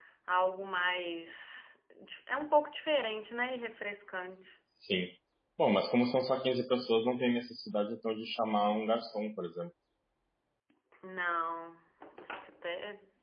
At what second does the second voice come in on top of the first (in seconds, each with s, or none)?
none